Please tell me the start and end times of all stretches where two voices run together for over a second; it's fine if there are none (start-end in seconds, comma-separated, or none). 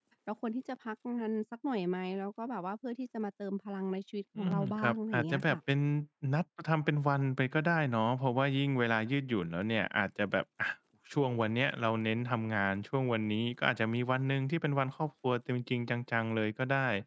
4.4-5.6